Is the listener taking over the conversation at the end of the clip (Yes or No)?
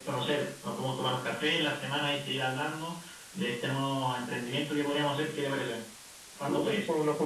Yes